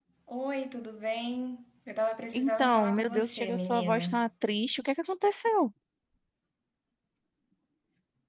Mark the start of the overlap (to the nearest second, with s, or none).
2 s